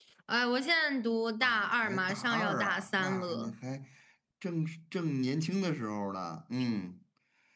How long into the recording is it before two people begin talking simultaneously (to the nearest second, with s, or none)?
1 s